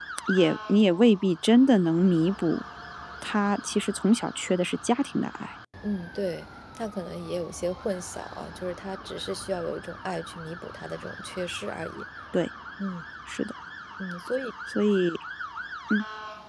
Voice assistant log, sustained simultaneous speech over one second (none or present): none